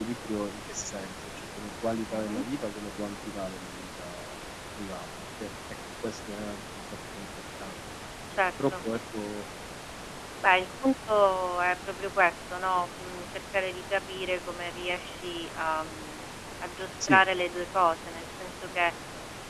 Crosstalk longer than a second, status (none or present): none